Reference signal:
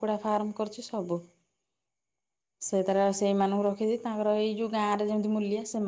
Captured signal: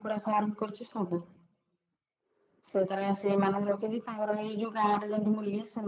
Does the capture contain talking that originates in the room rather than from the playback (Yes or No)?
No